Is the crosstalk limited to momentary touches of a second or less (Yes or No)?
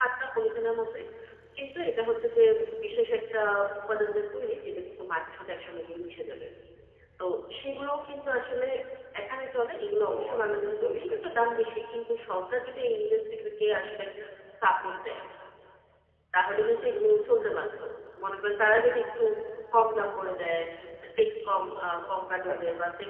No